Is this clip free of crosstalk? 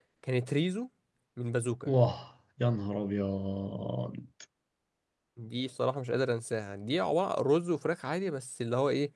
Yes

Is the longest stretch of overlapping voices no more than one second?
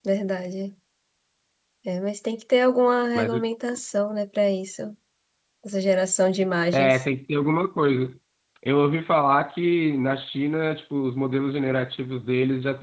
Yes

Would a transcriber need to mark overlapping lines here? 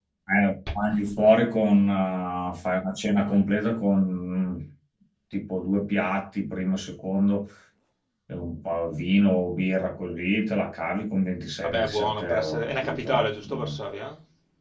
Yes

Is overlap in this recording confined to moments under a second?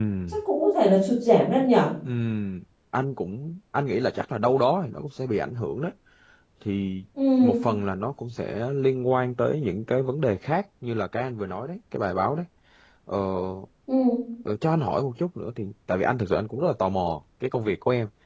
Yes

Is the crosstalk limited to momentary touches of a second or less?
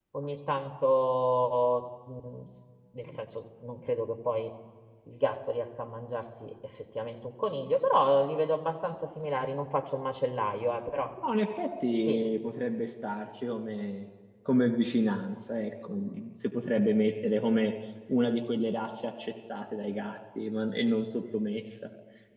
Yes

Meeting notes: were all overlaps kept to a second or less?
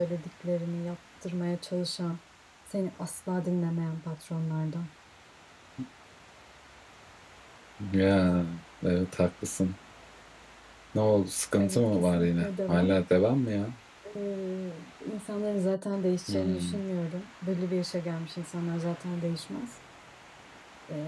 No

